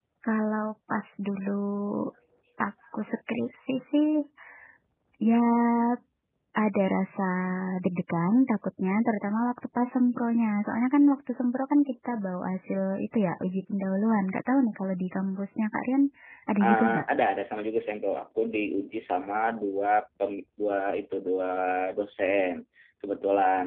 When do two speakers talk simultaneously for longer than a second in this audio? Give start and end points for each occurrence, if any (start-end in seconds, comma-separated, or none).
none